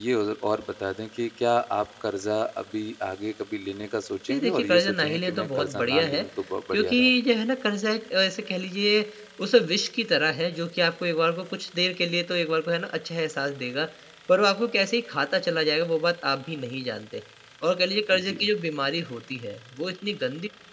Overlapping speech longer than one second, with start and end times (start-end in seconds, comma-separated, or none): 4.3-6.2